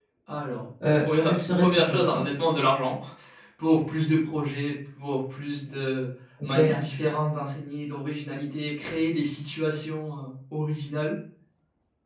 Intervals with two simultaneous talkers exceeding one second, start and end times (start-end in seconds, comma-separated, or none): 1.0-2.3